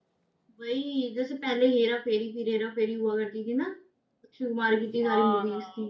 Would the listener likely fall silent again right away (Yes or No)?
No